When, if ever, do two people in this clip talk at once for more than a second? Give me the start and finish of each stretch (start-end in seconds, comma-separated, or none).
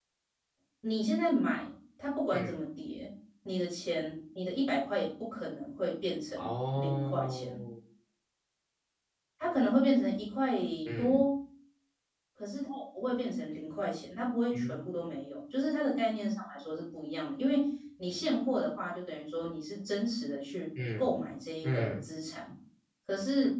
6.4-7.6